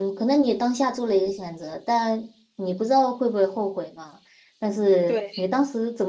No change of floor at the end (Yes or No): Yes